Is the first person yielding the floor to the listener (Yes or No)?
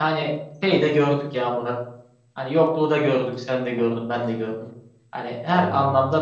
No